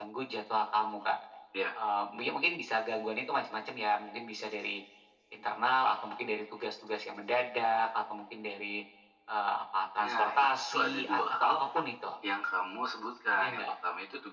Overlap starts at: 10.0 s

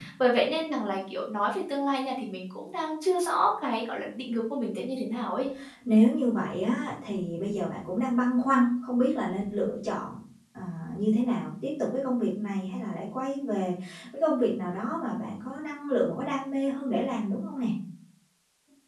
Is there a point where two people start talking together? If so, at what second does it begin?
none

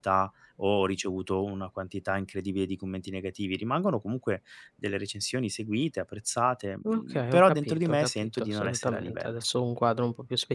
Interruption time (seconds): 6.8 s

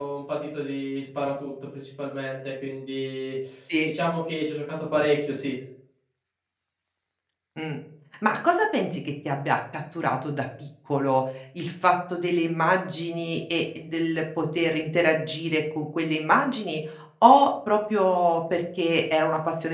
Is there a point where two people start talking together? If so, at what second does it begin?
none

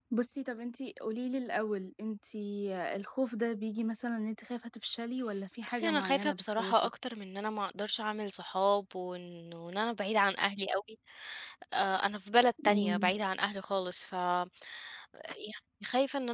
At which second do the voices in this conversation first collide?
5.7 s

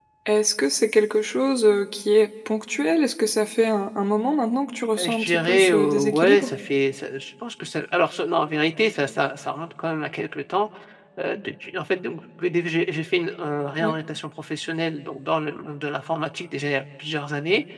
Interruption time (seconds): 5.0 s

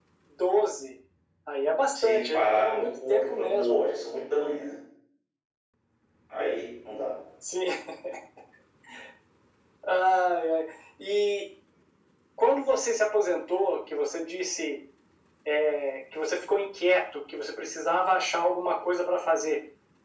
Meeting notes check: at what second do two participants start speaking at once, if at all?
2.0 s

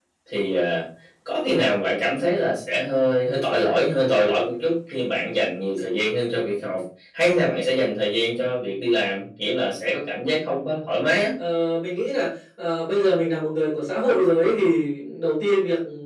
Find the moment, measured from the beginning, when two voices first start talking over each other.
none

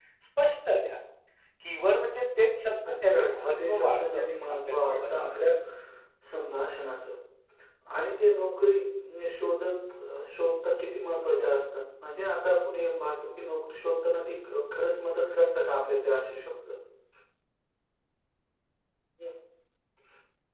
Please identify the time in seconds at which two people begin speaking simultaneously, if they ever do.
2.9 s

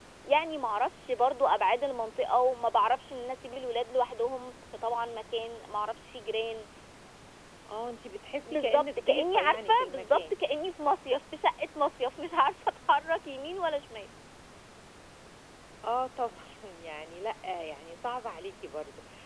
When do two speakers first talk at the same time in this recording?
8.5 s

